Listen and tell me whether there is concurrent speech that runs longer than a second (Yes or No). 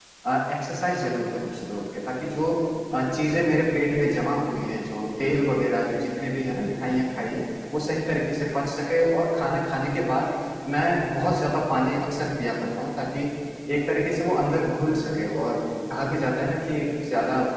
No